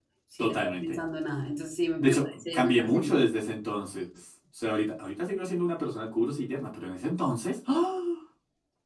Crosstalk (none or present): present